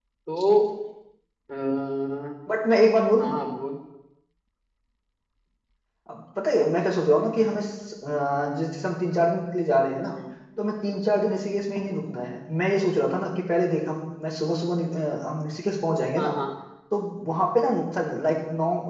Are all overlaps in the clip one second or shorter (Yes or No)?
Yes